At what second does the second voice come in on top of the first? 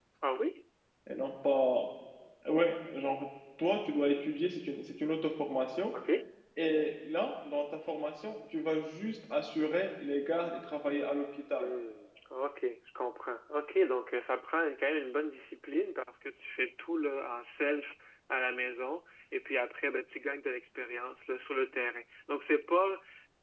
none

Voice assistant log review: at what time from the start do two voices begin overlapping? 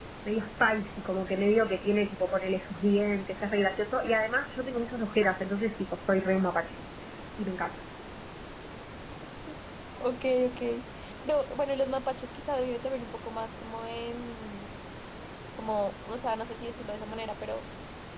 none

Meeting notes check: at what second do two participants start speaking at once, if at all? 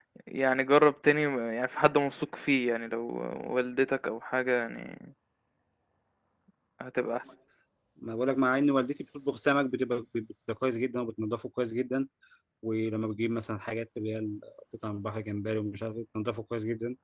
none

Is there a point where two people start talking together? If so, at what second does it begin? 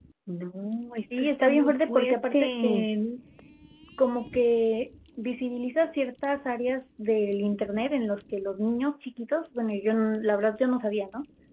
1.2 s

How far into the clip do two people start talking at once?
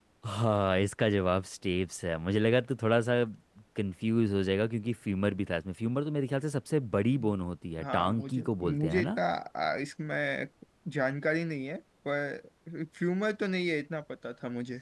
7.8 s

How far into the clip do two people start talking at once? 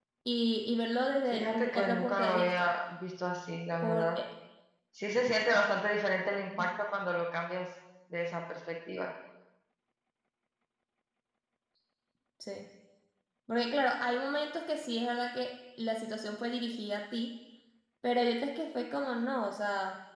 1.3 s

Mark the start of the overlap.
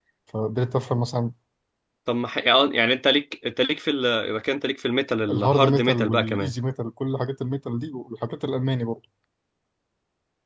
5.3 s

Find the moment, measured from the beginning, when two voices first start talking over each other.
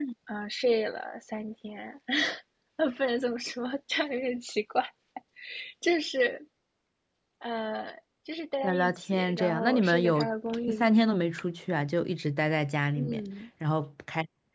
8.6 s

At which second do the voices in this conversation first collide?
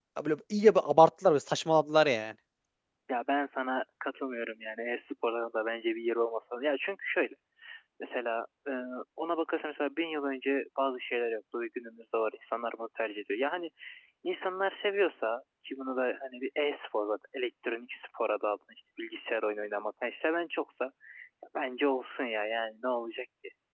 none

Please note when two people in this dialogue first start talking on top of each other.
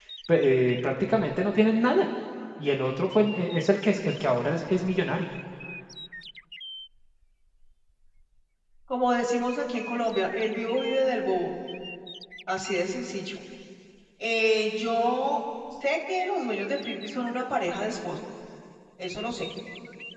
none

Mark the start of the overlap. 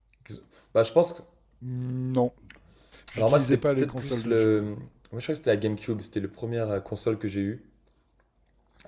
3.2 s

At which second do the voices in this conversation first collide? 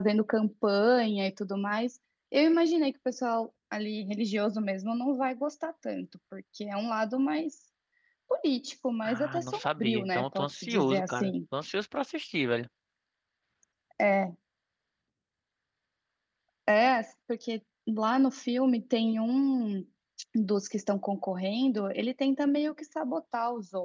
9.0 s

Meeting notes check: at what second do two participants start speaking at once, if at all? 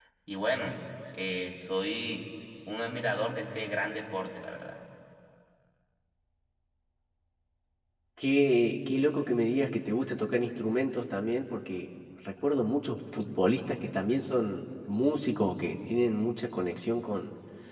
none

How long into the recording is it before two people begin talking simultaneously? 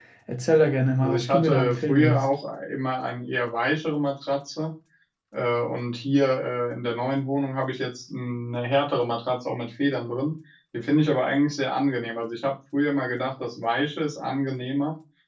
1.0 s

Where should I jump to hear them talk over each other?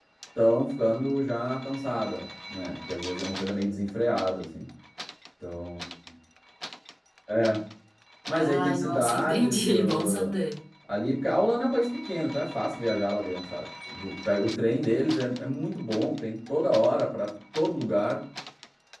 8.3 s

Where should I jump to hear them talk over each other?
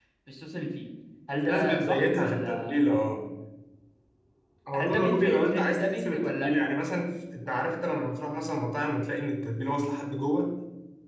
1.4 s

